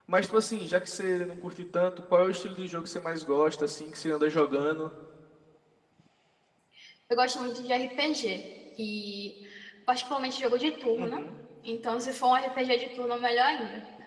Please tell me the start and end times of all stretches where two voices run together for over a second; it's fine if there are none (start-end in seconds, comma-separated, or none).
none